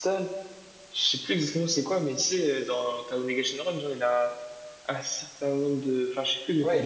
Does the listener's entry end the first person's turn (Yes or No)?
Yes